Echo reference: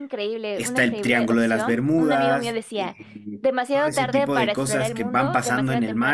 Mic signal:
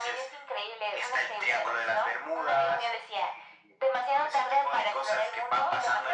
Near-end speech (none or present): none